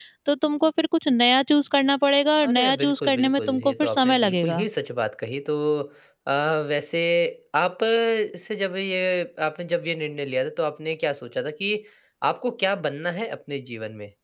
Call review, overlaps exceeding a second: present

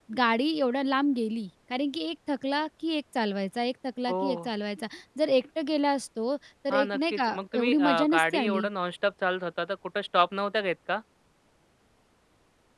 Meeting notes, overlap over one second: present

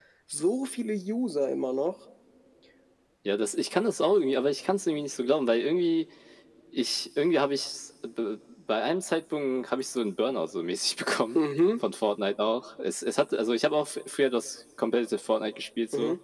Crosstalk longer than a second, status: none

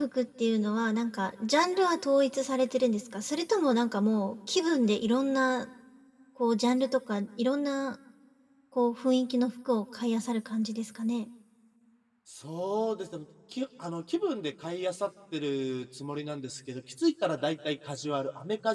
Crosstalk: none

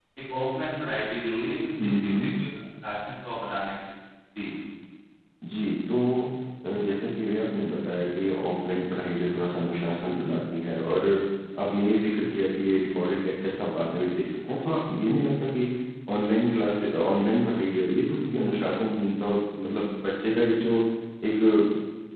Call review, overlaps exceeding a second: none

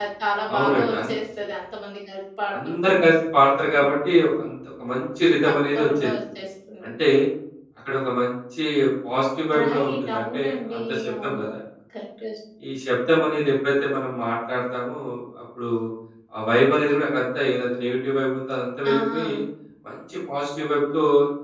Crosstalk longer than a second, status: present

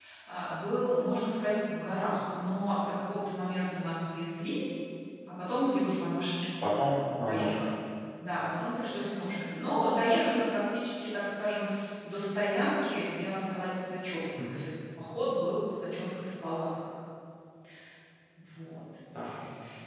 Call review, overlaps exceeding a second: none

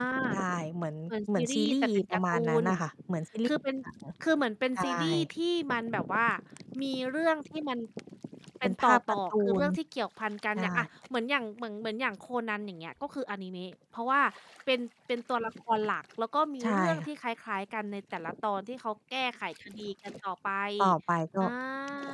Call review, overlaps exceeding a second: present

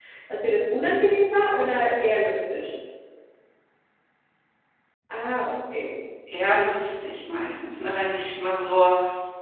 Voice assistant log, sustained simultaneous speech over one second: none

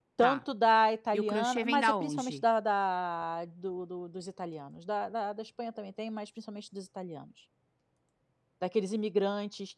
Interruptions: present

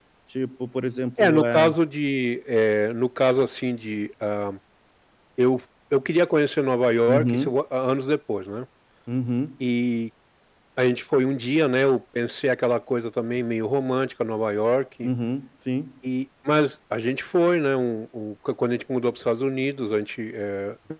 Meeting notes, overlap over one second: none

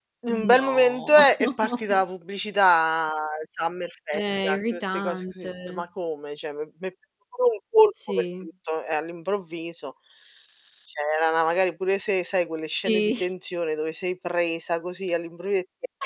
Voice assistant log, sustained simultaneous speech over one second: present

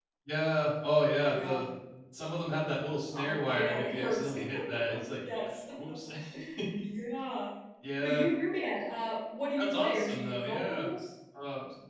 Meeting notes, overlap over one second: present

